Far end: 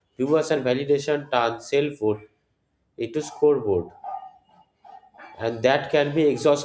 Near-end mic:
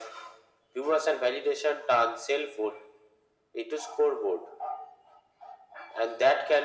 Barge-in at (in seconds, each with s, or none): none